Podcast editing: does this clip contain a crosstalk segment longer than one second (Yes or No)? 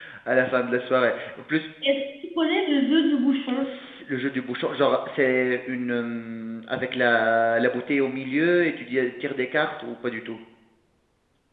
No